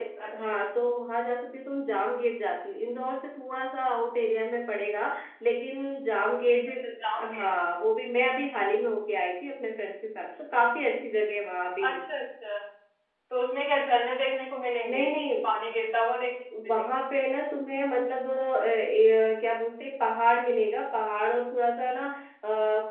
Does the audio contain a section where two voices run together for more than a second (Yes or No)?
No